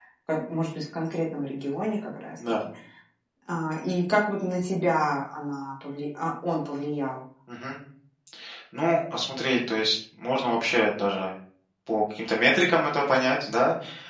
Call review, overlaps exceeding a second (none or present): none